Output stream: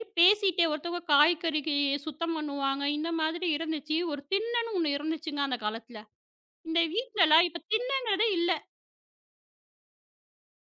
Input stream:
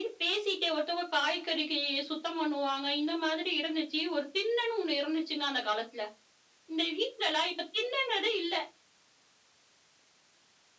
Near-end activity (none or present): none